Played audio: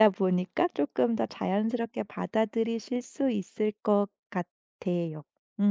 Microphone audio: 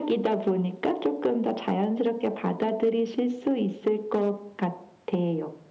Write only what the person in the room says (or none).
none